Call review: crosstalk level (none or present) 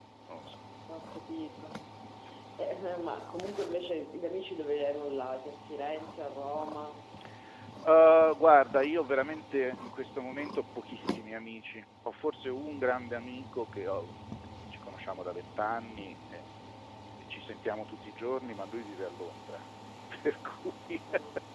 none